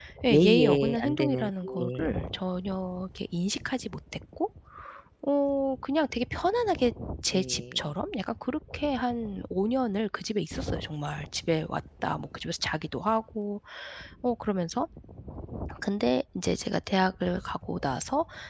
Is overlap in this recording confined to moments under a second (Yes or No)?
No